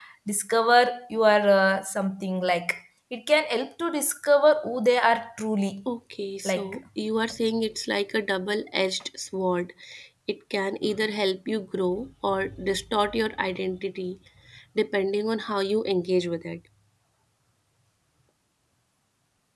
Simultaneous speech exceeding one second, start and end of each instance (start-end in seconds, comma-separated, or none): none